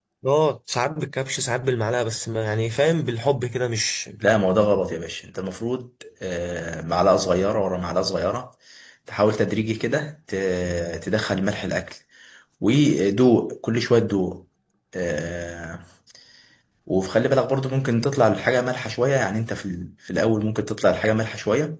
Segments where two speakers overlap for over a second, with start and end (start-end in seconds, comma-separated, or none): none